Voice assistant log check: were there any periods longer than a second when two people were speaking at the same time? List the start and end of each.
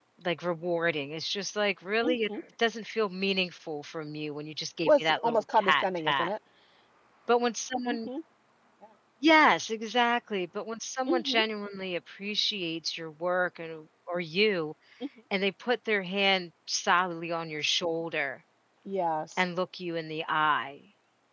4.9-6.3

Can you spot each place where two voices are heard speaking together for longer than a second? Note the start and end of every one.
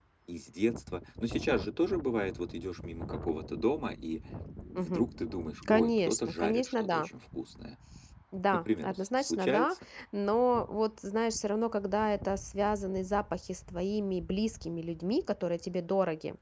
5.7-7.1, 8.5-9.8

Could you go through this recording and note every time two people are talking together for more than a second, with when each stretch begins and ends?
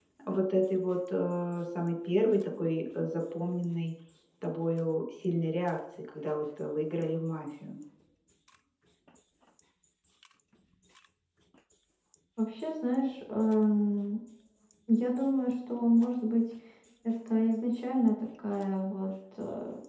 none

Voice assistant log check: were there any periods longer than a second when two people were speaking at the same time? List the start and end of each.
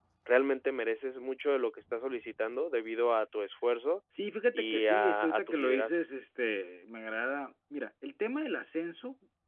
4.5-6.0

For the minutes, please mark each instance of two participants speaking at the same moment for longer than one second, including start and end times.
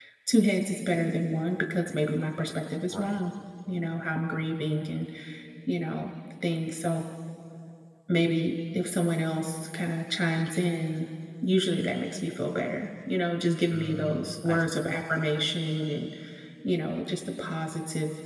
13.7-14.9

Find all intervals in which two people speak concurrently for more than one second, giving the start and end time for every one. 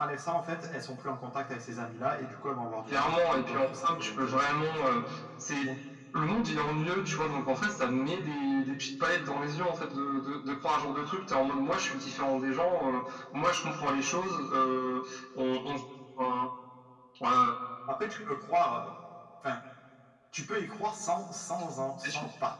2.9-4.9

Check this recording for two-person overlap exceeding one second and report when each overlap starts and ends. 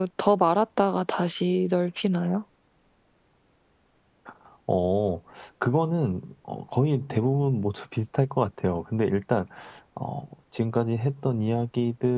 none

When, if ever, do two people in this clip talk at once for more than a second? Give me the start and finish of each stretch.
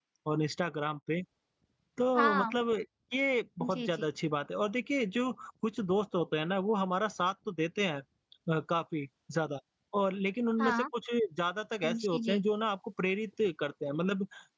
none

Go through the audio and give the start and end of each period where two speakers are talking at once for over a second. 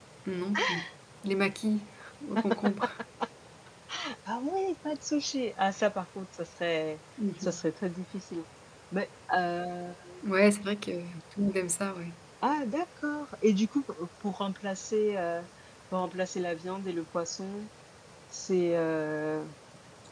none

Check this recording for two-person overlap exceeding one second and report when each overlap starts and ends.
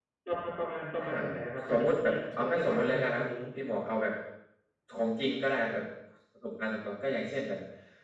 1.0-3.3

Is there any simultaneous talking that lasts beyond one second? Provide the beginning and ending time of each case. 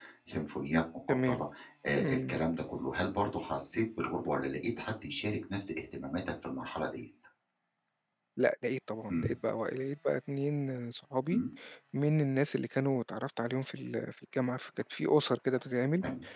none

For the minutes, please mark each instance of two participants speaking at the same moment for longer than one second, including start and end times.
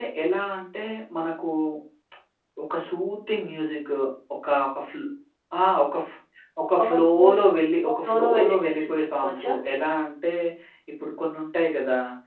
7.8-9.5

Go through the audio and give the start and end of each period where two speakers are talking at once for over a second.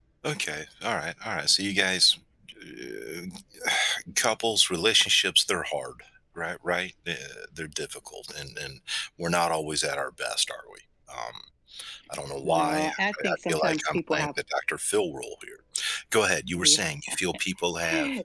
12.4-14.3

